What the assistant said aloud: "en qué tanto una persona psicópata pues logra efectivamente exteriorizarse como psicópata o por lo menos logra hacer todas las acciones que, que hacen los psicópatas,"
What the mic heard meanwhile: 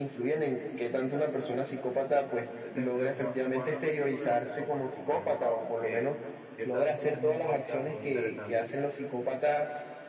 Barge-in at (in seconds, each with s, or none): 2.4 s